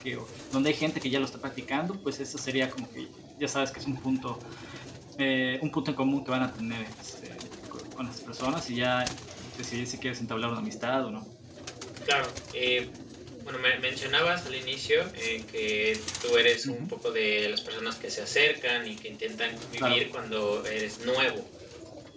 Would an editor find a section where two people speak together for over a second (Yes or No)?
No